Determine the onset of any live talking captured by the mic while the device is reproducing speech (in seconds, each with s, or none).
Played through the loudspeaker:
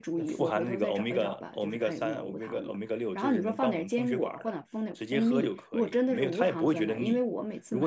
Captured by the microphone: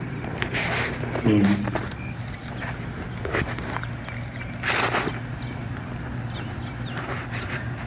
1.2 s